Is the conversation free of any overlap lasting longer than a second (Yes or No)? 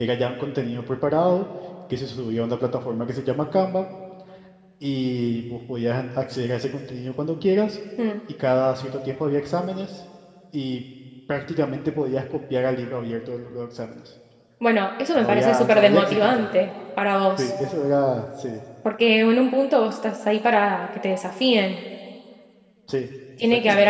No